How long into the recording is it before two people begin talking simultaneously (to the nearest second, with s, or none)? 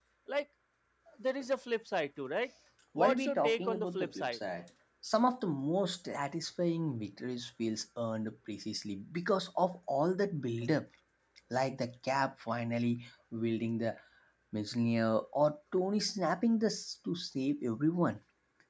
3 s